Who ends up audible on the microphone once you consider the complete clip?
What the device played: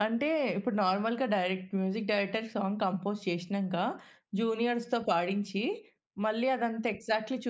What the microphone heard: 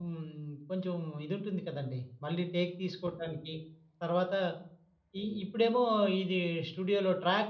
user only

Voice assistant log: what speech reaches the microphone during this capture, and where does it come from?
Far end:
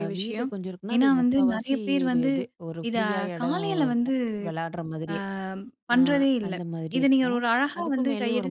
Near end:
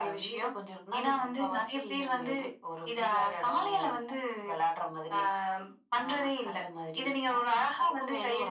echo only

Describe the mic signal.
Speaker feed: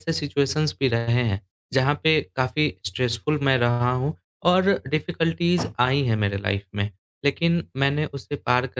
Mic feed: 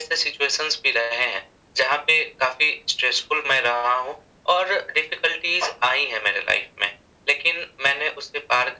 echo only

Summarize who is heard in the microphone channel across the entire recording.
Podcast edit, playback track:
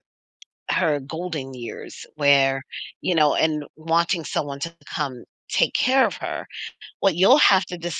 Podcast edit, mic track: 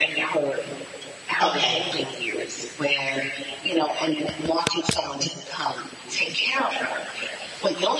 both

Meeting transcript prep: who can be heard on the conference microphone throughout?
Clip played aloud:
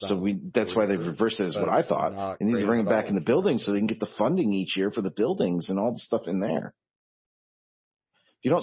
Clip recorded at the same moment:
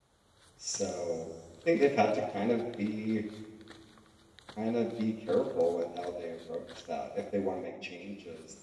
user only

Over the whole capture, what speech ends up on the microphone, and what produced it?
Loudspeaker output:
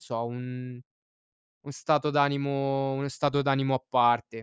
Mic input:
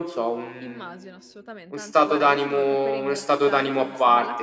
both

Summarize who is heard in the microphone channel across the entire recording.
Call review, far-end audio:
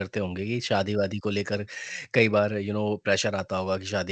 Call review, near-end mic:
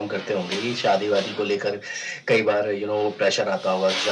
echo only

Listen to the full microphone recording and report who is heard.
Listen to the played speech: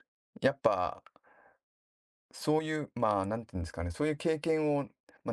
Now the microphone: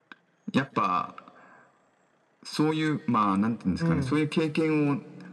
both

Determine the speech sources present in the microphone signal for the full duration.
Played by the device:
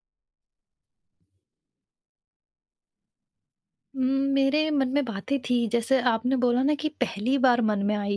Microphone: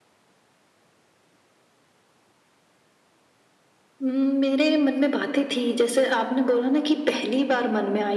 echo only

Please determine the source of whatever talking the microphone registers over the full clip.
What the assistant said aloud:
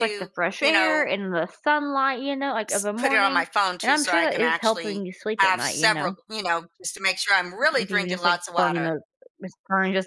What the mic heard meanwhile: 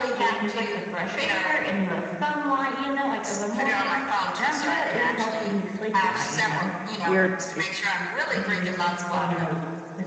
both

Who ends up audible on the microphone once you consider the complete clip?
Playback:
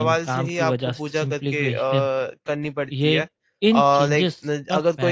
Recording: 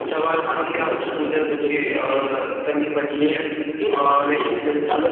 echo only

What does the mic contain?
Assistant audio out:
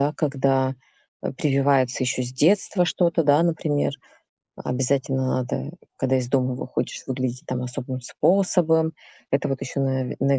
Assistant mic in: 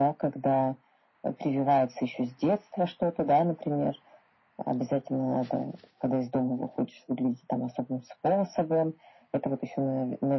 echo only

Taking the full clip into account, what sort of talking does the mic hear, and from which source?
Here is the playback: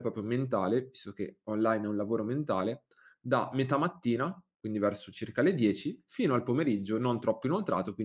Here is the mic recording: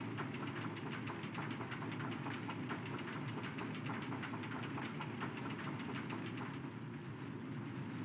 neither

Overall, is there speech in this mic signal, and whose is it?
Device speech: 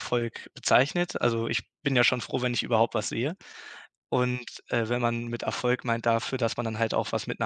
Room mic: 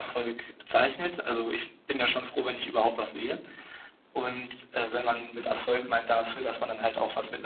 echo only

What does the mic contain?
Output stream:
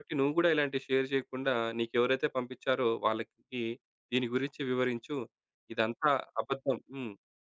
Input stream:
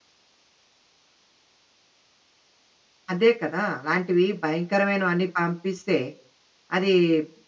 user only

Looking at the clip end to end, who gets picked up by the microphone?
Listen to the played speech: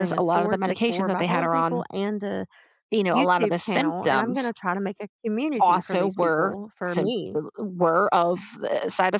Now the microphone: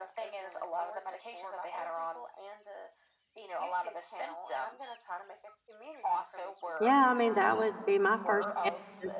both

